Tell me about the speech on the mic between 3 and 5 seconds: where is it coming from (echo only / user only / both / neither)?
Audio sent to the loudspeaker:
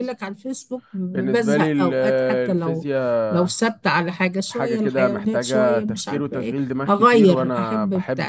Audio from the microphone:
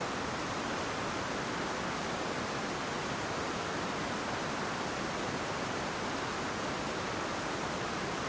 neither